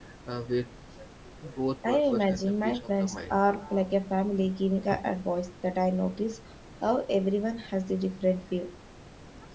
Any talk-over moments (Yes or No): Yes